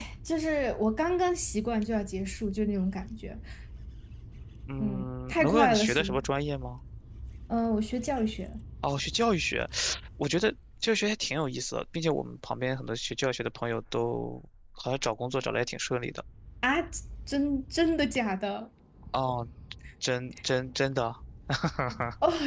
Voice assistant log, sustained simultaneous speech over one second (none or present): present